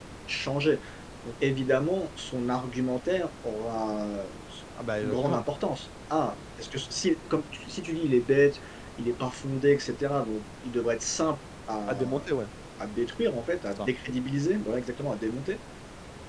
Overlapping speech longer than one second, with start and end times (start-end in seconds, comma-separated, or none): none